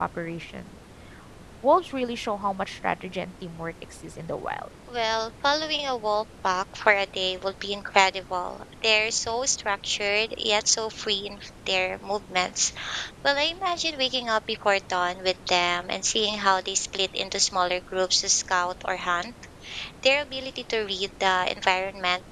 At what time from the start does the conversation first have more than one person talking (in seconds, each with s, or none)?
none